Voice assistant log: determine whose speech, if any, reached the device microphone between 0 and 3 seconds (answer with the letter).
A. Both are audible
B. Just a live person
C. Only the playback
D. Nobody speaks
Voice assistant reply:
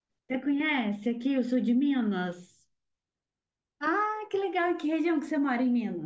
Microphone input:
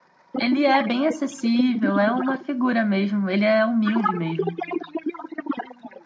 A